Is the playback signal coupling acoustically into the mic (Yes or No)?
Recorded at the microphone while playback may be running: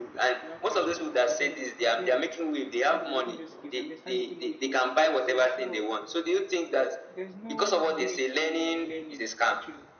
Yes